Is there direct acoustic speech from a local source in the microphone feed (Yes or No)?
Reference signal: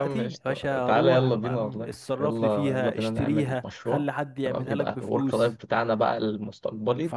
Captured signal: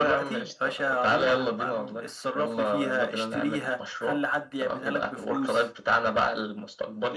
No